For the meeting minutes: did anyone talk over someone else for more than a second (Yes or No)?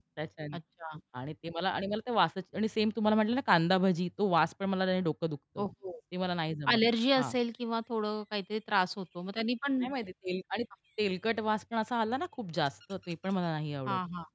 No